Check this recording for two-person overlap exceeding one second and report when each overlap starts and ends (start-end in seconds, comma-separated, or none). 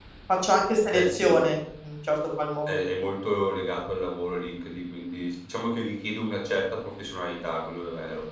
none